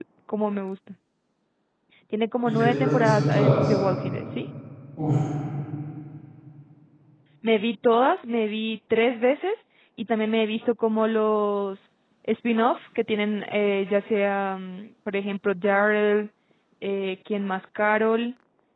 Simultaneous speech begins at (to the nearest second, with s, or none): 2 s